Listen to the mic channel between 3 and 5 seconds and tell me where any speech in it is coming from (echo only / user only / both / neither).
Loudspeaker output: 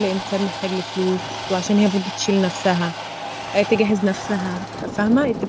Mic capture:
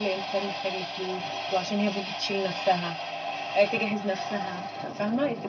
echo only